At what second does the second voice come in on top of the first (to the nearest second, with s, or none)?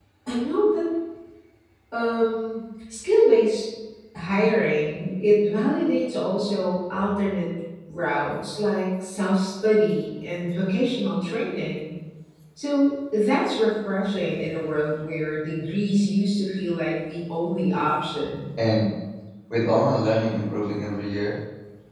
none